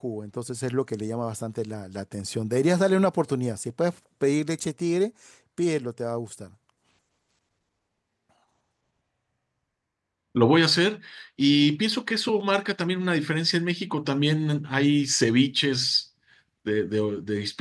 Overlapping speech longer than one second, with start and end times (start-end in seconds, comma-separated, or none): none